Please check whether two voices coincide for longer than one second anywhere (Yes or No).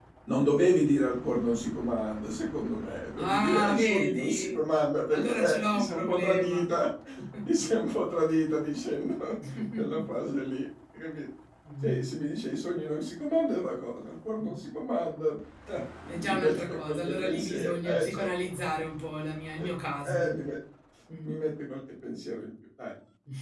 Yes